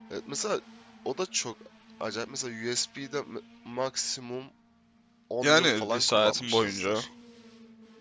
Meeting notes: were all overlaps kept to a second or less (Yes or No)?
No